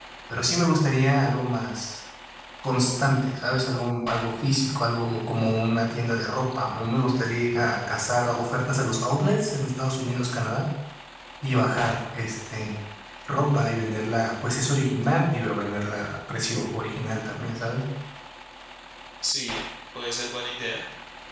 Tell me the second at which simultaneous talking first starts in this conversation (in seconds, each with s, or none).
none